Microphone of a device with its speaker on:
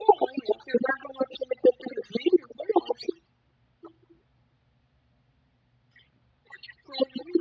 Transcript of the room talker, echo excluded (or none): none